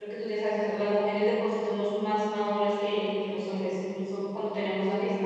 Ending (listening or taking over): listening